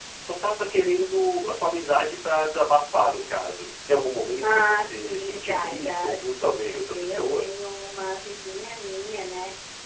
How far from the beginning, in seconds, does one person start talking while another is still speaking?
4.4 s

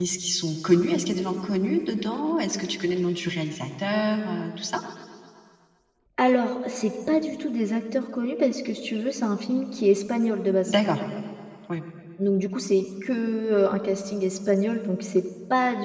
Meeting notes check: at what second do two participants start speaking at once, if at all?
none

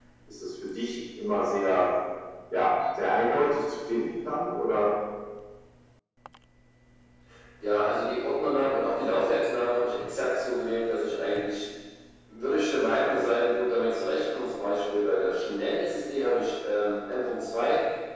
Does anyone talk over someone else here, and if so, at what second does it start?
none

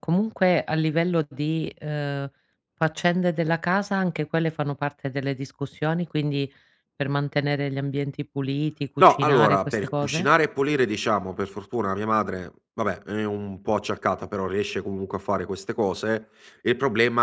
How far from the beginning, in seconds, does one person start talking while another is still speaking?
9.0 s

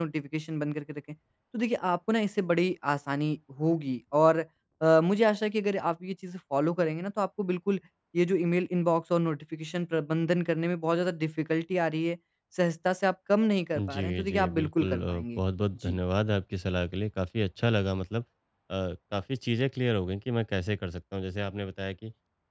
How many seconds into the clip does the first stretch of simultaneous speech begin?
13.7 s

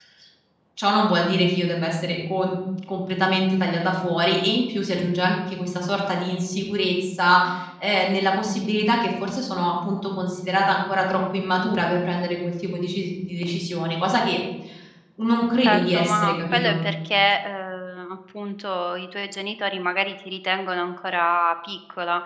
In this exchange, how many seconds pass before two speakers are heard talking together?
15.6 s

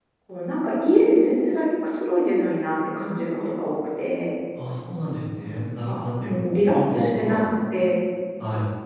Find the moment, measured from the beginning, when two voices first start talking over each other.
5.8 s

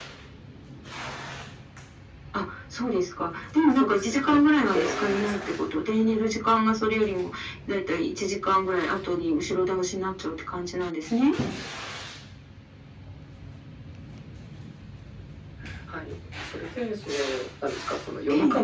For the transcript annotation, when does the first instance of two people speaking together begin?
3.6 s

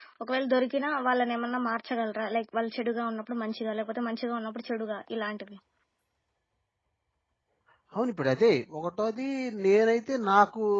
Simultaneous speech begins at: none

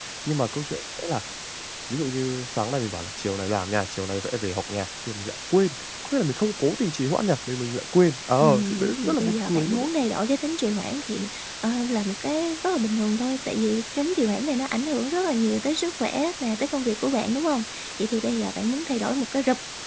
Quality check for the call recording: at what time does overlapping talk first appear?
8.4 s

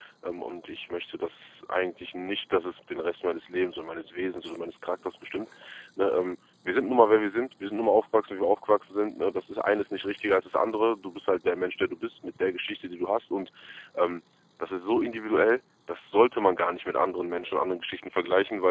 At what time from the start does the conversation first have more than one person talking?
none

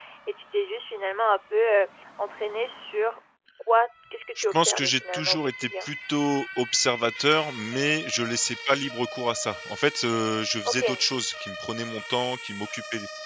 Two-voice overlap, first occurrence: 4.4 s

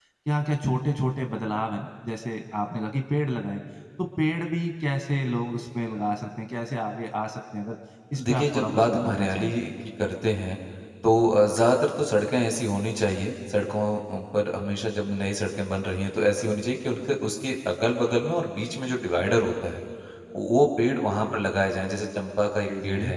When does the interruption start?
8.2 s

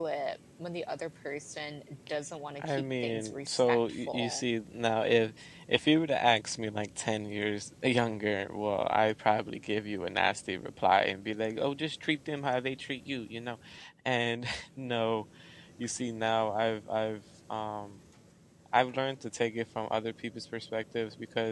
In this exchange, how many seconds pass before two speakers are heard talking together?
2.6 s

